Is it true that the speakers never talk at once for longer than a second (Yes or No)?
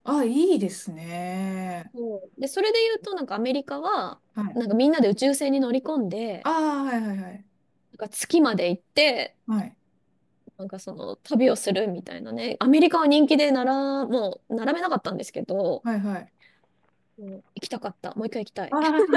Yes